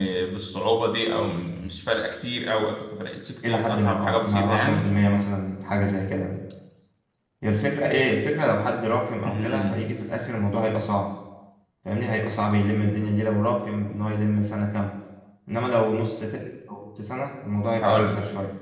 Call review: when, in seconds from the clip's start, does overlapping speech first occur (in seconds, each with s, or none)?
3.5 s